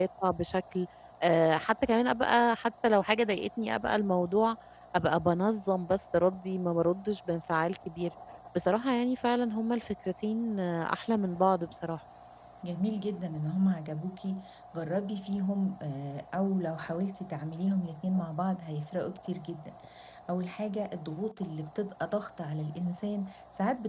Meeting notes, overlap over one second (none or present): none